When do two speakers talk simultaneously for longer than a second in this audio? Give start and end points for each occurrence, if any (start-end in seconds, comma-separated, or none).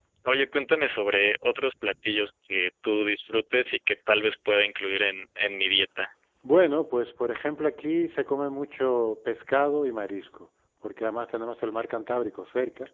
none